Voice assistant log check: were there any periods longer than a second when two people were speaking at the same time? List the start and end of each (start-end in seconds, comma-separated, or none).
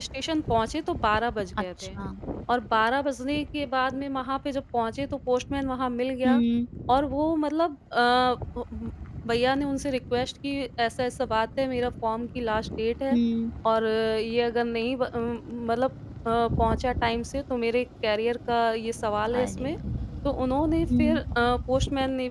none